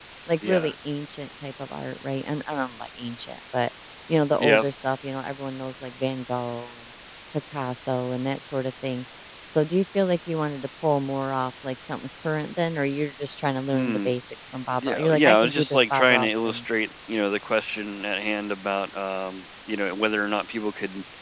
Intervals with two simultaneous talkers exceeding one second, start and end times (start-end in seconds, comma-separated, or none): 14.8-16.6